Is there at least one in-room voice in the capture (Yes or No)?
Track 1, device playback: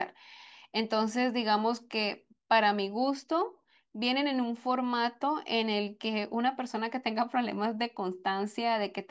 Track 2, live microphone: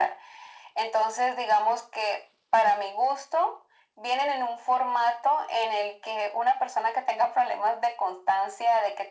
No